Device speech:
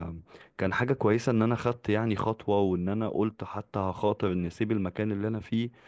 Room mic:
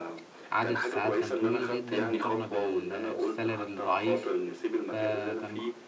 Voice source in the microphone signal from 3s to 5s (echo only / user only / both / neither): both